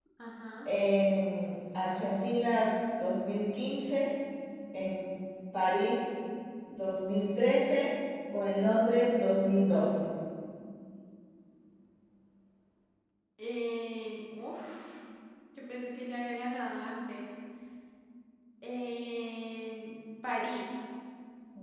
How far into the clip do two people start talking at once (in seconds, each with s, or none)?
none